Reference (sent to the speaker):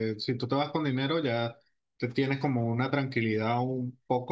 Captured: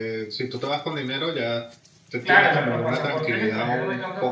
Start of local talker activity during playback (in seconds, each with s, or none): 2.2 s